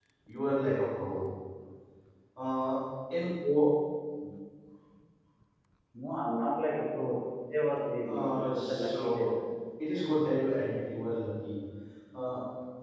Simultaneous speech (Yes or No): Yes